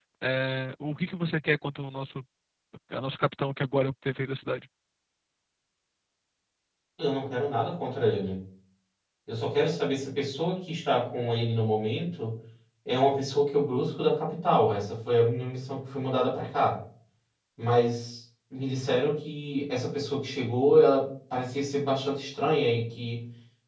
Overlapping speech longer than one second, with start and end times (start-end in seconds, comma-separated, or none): none